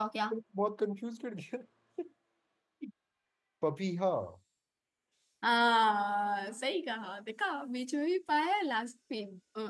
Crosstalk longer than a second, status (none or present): none